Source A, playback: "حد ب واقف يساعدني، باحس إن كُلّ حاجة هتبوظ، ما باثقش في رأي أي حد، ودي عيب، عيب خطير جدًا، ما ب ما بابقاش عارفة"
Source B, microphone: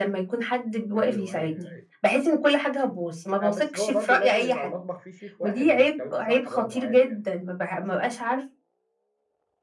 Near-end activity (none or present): present